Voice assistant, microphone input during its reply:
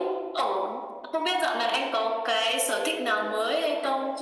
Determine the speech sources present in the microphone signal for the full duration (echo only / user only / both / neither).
echo only